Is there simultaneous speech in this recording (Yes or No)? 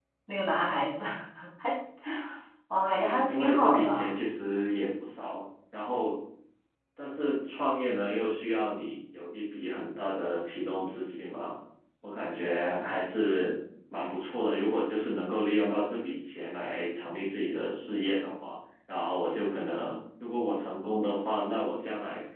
Yes